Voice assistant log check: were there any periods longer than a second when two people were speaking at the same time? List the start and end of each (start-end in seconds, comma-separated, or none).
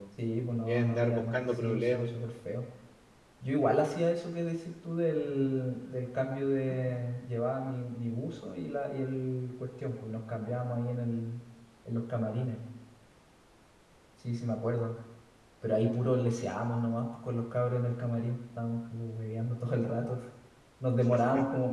0.7-2.3